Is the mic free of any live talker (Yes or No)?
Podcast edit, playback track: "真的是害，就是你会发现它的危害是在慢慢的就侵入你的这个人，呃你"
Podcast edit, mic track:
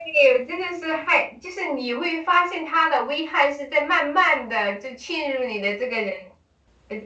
Yes